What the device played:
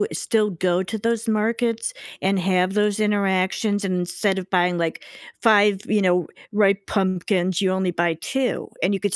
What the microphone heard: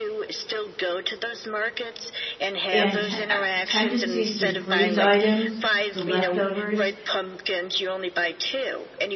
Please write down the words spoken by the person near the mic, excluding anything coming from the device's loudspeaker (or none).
And te uh, tendencies to freeze items, the leftovers,